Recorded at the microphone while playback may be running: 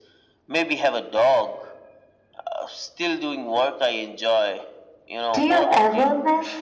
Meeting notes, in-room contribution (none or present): present